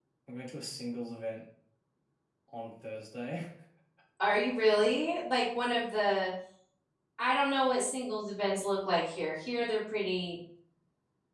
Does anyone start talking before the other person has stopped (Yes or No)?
No